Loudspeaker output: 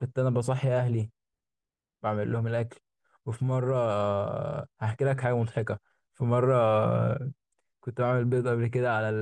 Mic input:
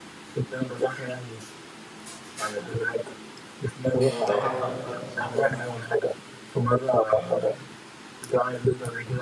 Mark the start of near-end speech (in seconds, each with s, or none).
3.9 s